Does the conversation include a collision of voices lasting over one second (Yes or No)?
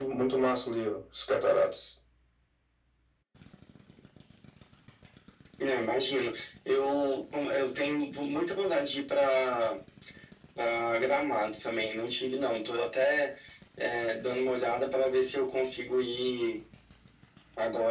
No